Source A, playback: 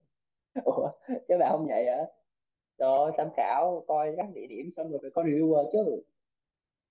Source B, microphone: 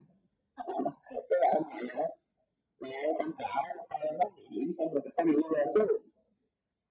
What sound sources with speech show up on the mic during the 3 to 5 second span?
echo only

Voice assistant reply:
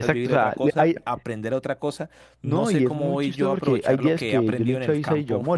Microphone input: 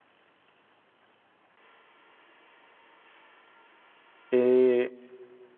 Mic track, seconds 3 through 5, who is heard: user only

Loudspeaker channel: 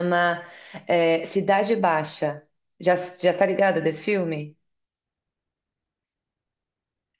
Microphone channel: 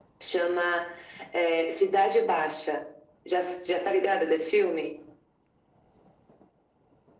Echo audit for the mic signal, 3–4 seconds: echo only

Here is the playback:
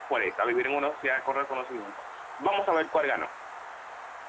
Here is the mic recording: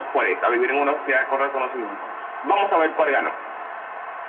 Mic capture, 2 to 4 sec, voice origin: echo only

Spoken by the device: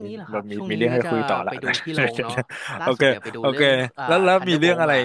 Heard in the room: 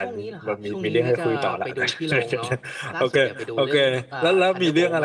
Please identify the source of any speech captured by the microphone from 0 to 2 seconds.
echo only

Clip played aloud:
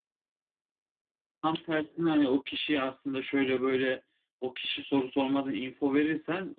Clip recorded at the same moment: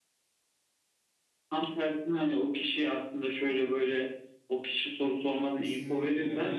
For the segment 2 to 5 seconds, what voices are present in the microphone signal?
echo only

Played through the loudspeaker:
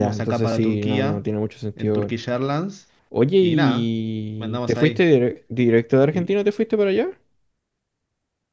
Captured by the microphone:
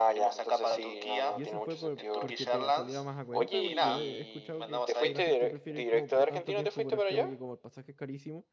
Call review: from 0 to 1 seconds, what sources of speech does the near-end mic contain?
echo only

